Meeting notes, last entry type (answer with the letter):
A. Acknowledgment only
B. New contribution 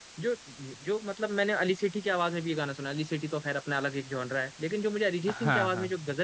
A